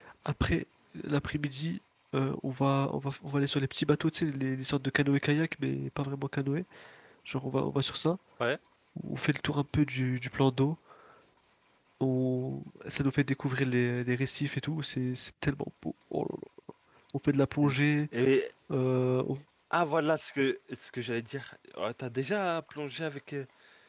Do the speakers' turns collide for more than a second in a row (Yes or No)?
No